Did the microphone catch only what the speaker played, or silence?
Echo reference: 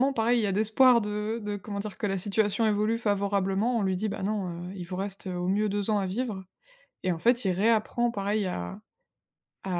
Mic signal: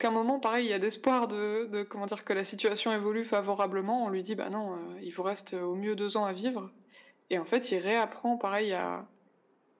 Yes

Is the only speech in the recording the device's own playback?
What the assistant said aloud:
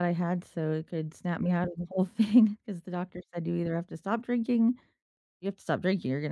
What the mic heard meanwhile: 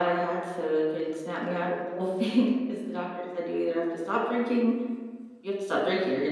Yes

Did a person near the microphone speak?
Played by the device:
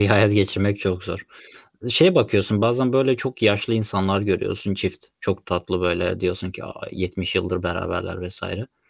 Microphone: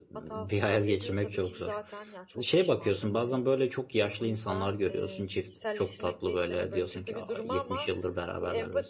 Yes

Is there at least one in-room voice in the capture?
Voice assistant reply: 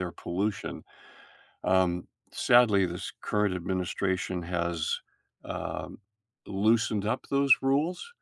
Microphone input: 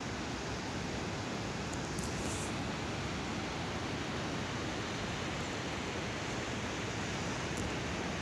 No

